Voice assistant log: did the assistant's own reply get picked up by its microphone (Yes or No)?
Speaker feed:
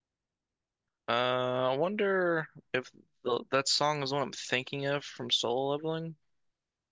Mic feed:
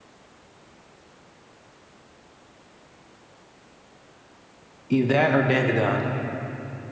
No